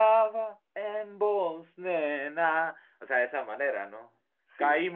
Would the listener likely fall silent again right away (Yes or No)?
Yes